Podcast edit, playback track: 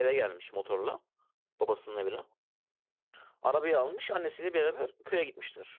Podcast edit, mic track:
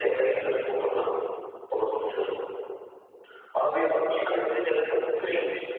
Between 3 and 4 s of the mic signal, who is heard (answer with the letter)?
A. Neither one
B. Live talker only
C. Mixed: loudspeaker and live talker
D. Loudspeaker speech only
D